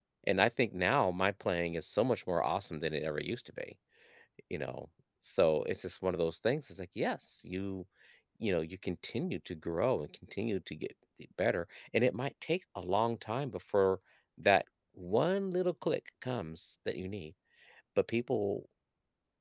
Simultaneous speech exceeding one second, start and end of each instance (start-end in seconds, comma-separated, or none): none